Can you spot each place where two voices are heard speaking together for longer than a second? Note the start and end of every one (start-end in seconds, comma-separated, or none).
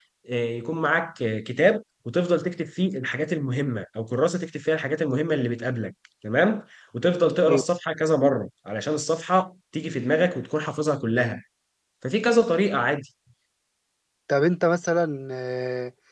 none